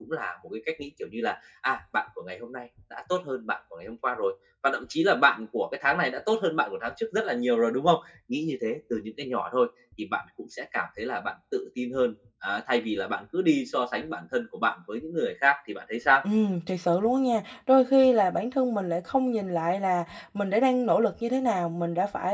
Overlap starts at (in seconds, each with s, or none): none